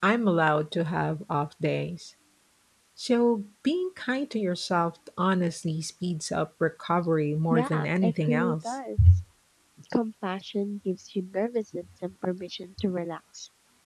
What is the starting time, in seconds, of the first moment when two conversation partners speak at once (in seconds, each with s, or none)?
7.5 s